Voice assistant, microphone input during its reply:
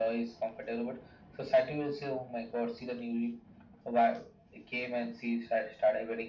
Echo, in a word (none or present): present